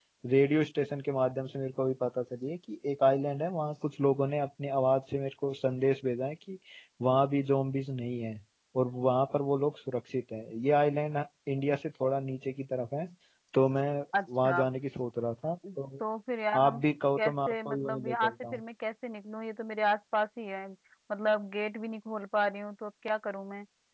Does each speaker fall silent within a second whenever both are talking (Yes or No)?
No